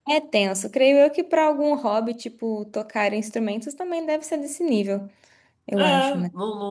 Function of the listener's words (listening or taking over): taking over